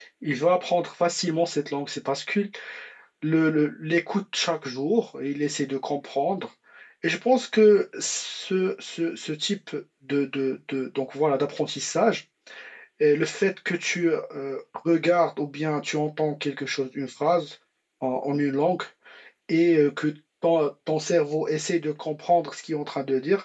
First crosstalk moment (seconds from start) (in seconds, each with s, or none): none